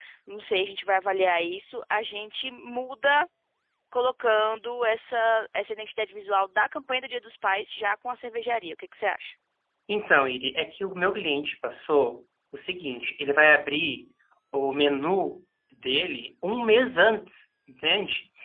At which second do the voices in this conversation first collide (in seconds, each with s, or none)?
none